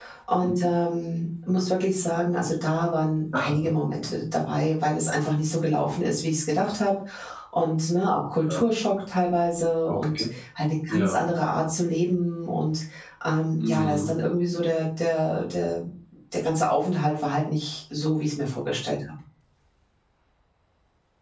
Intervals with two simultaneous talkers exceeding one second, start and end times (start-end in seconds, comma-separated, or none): none